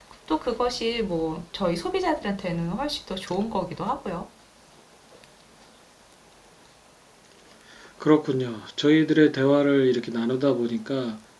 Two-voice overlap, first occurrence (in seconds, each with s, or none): none